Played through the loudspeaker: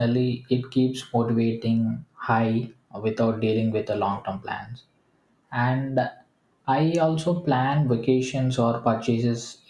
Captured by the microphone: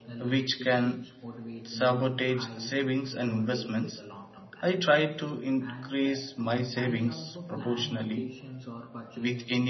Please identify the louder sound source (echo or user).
user